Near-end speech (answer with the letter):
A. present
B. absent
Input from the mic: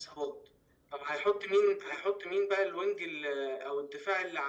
B